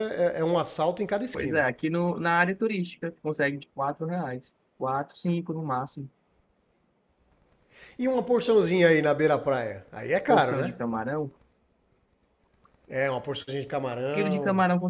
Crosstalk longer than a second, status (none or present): none